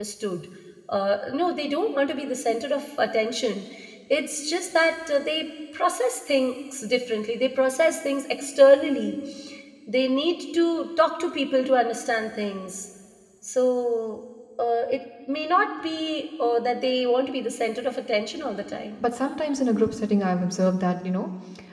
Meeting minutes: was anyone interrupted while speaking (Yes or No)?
No